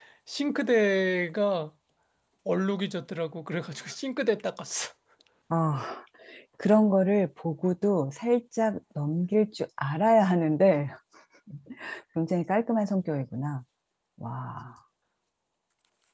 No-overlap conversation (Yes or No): Yes